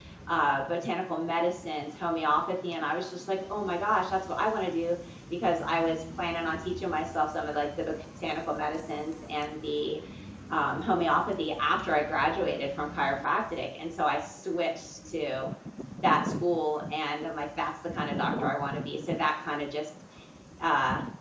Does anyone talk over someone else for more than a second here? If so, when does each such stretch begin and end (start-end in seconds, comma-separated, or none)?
none